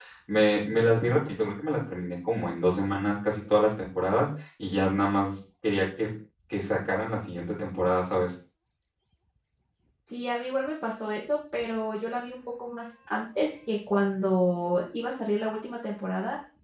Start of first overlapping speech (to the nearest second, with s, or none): none